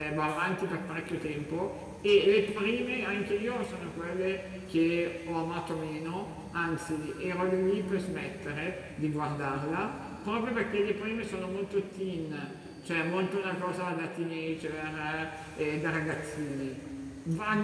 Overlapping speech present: No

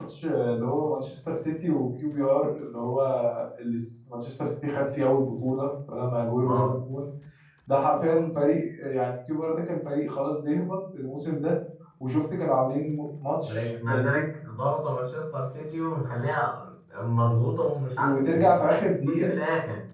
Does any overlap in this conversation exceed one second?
Yes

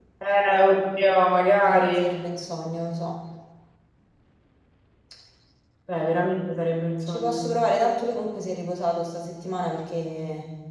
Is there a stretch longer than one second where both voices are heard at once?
No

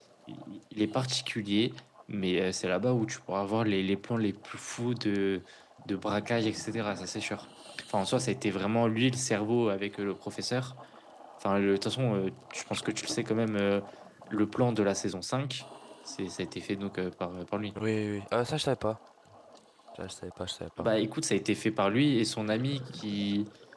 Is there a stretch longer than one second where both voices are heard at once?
No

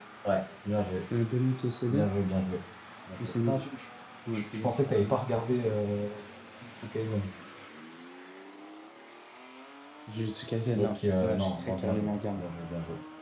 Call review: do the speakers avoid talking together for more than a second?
No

